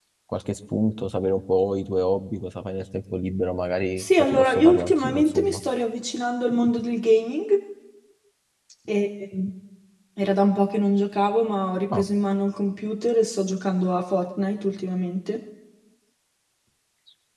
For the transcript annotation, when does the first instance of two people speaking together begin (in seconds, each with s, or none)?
4.0 s